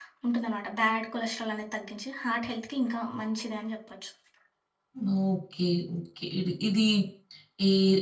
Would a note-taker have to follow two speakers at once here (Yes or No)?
No